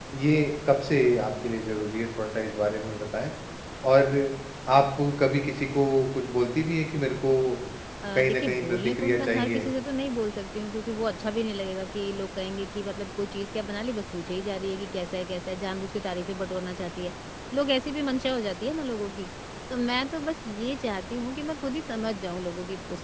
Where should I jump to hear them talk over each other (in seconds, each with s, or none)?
8.2 s